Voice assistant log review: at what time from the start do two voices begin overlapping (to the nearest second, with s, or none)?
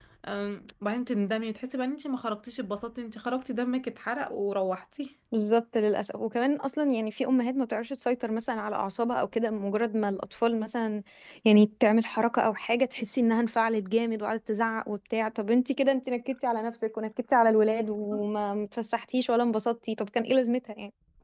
none